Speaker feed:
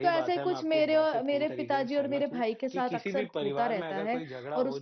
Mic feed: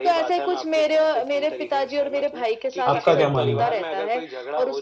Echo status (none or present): present